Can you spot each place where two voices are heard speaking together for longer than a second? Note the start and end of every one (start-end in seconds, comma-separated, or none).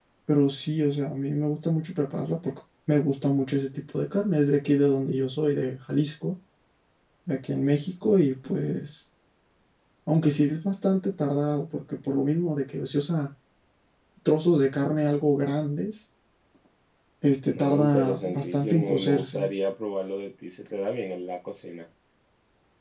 17.5-19.5